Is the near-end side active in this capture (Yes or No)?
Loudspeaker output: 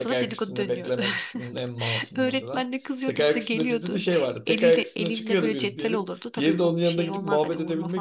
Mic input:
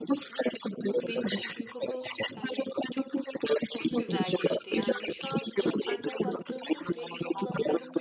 Yes